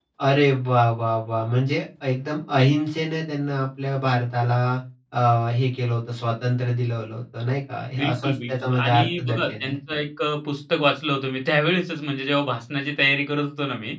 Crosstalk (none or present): present